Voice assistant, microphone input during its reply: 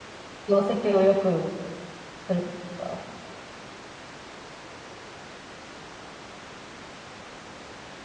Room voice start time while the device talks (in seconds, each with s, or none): 0.5 s